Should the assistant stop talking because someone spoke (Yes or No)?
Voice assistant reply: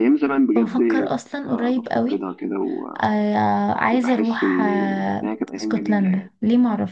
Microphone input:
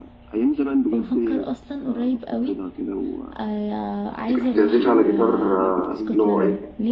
Yes